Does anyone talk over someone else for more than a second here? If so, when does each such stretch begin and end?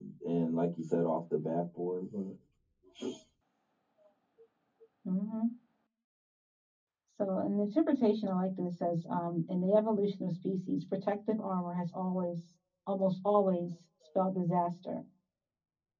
none

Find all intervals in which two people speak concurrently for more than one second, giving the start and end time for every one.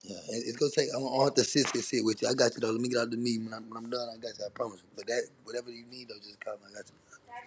none

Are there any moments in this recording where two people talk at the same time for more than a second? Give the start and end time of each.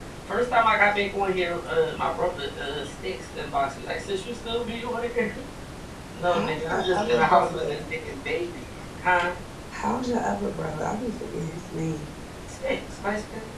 6.3-7.8

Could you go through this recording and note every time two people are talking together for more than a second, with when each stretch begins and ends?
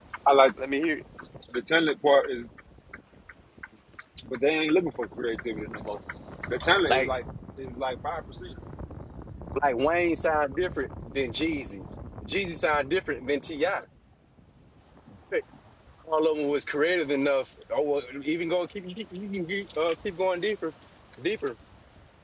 none

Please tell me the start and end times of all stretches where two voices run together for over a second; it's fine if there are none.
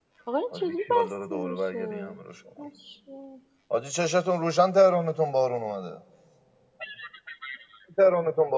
0.6-2.1

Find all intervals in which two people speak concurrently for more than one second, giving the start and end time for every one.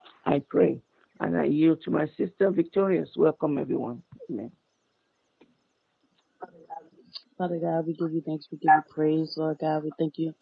none

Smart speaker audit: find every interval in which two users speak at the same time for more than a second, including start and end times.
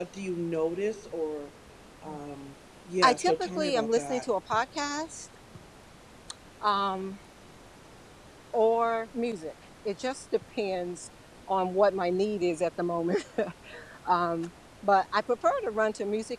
3.0-4.2

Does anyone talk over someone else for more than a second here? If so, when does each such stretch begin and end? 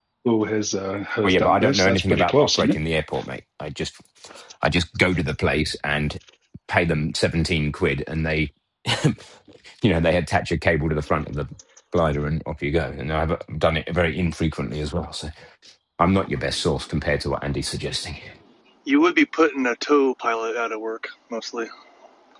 1.2-2.8

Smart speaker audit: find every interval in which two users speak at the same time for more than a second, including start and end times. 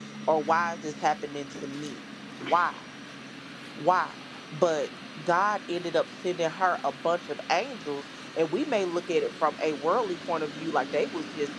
none

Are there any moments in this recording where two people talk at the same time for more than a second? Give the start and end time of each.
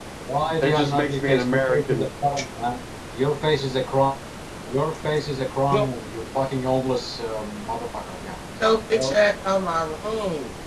0.6-2.1

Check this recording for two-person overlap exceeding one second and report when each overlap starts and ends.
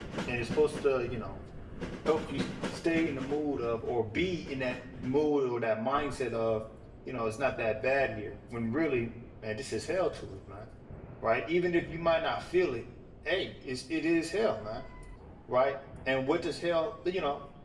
none

